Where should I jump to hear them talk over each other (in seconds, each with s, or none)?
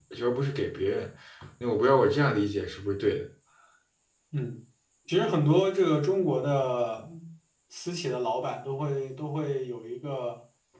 none